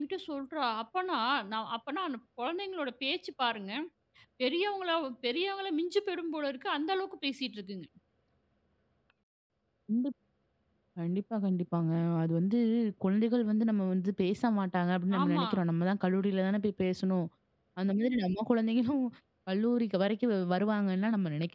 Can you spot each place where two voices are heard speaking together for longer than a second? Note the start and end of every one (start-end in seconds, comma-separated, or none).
none